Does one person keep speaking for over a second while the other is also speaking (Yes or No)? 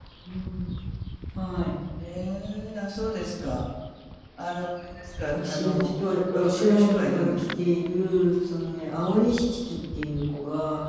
Yes